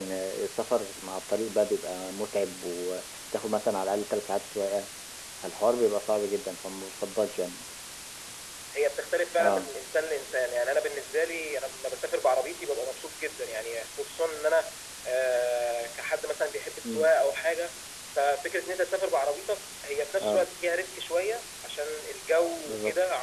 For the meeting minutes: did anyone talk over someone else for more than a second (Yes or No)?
No